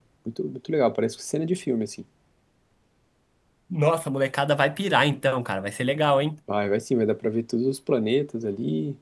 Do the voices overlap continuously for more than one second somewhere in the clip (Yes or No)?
No